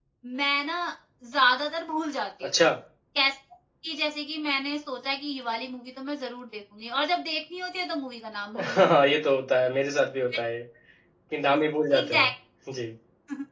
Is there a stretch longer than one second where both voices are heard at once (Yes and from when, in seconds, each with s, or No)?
No